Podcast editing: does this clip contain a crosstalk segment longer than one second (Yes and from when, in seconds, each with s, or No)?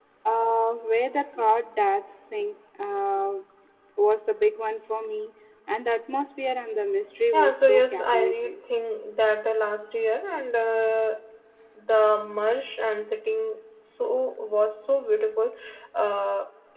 Yes, from 7.3 s